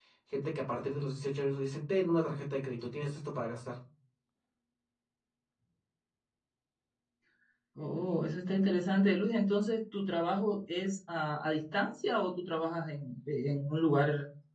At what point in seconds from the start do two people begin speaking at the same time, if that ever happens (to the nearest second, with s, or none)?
none